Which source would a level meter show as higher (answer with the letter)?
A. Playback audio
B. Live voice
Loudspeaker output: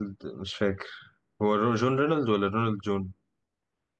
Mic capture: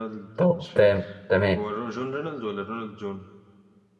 B